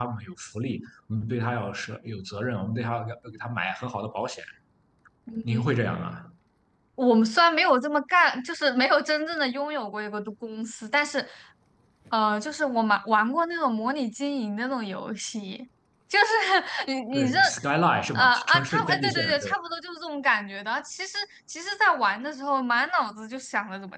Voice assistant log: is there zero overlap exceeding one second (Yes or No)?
No